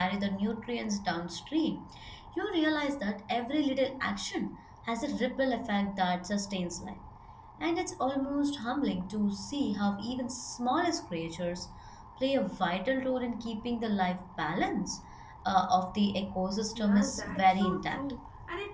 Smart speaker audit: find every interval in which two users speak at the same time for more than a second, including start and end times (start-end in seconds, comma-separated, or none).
16.8-18.1